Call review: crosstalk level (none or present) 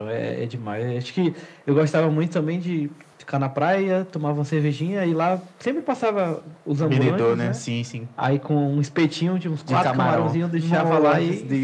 present